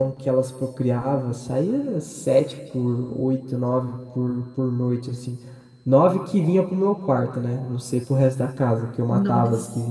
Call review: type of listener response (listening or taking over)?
listening